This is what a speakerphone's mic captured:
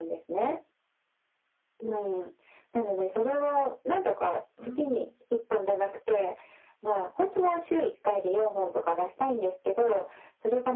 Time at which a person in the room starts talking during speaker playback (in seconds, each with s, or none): 4.6 s